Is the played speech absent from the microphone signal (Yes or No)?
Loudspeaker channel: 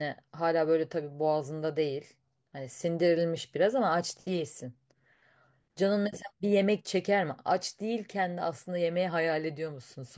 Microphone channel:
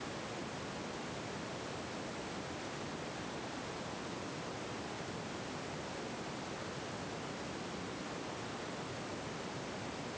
Yes